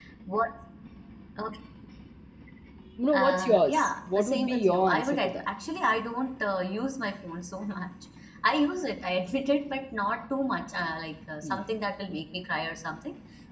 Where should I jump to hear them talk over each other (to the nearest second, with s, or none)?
3 s